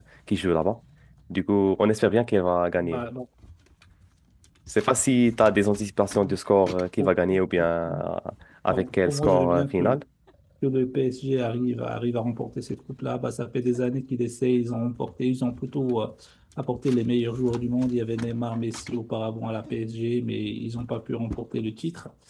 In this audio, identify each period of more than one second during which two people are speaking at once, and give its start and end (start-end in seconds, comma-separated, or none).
8.7-10.0